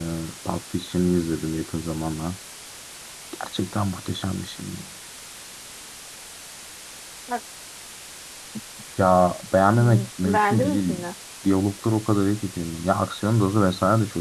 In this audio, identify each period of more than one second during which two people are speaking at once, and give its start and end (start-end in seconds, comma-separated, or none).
9.8-11.0